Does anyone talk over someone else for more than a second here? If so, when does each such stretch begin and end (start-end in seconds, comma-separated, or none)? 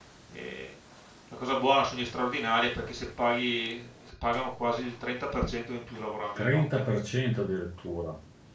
none